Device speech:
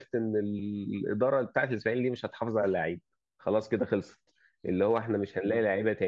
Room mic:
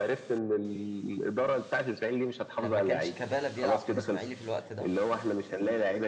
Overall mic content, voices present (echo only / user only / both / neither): both